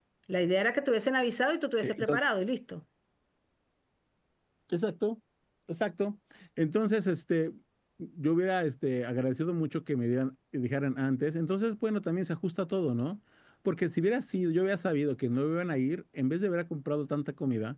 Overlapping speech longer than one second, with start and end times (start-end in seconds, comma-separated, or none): none